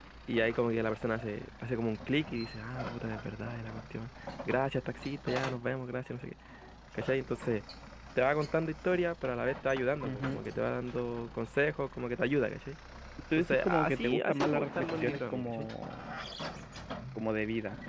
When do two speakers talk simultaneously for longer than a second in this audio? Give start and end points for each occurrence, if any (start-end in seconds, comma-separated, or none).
13.4-15.7